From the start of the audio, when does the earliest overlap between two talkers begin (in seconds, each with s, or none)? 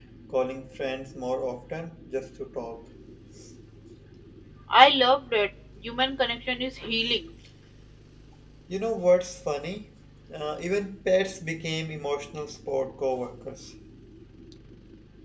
none